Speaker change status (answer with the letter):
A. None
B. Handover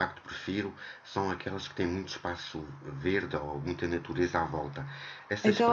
A